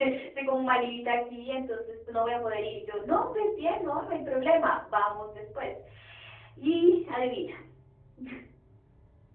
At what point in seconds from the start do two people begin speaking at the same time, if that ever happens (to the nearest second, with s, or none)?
none